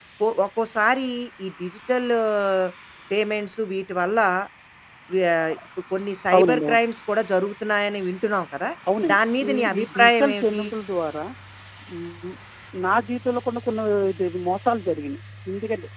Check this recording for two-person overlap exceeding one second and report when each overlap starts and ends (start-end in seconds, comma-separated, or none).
9.1-10.6